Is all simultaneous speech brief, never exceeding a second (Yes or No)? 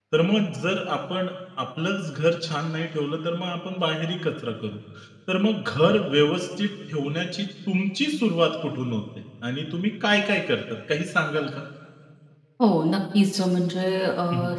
Yes